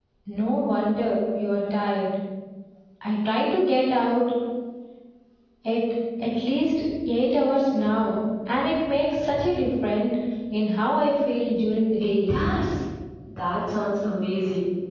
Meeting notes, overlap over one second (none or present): none